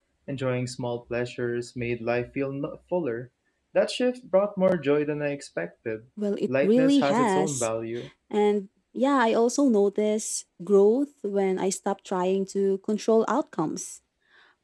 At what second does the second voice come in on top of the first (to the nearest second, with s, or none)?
6 s